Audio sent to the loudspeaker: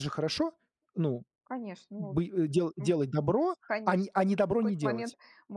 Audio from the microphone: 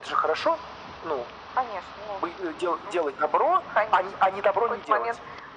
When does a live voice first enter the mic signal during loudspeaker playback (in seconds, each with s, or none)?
none